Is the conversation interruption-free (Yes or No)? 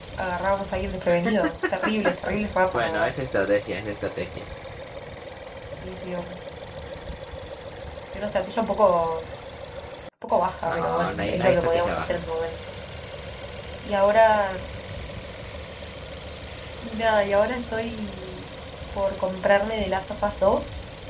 No